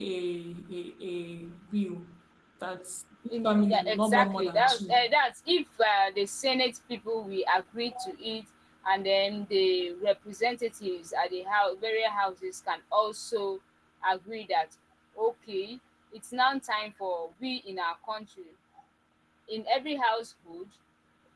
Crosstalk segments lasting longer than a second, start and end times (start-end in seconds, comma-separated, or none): 3.4-5.0